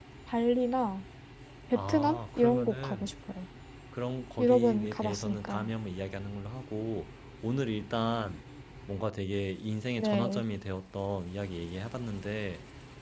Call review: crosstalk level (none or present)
present